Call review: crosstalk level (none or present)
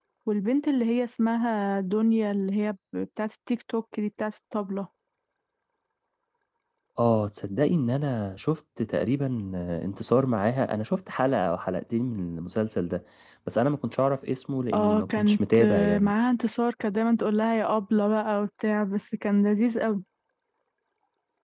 present